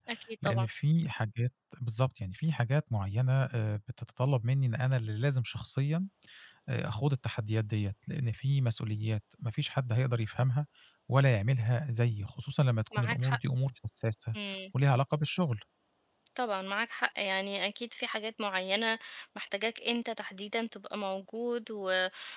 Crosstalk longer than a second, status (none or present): none